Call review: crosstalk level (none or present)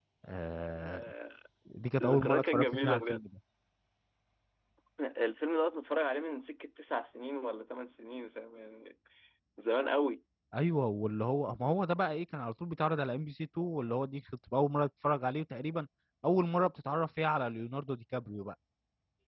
present